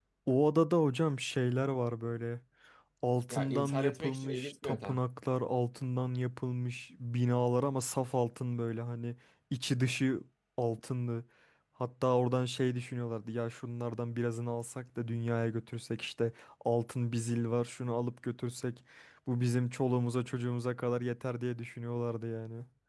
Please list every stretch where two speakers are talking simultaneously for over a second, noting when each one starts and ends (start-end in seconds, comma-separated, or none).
3.3-4.8